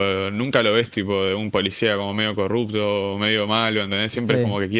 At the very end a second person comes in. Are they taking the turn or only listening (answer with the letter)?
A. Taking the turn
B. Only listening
A